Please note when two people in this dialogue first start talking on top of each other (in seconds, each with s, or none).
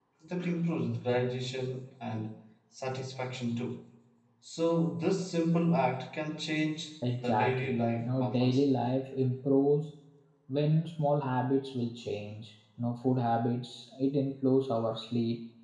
7.0 s